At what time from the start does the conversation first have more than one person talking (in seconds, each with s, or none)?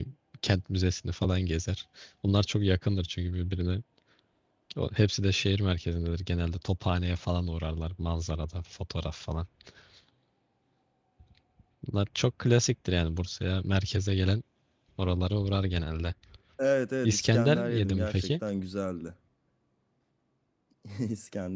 17.0 s